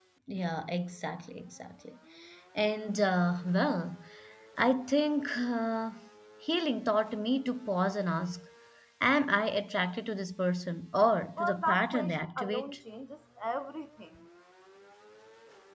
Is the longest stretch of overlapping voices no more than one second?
No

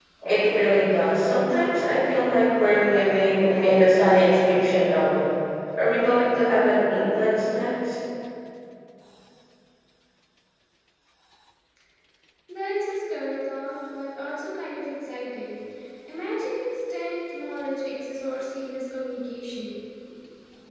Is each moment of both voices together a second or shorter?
Yes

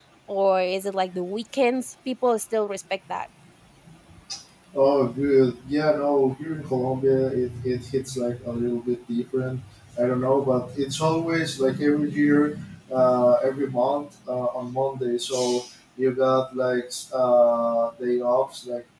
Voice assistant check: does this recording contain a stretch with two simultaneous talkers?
No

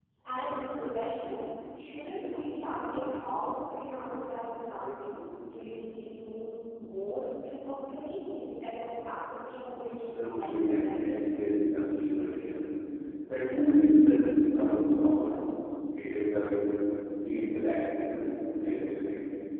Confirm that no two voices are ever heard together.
No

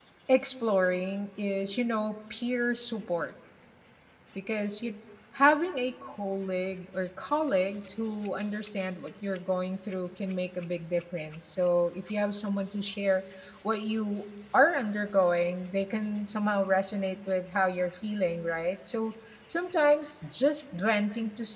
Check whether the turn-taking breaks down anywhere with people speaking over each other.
No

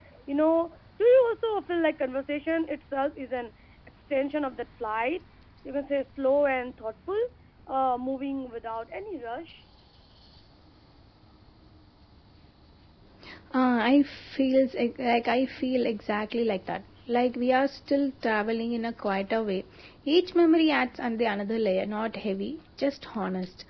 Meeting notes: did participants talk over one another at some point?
No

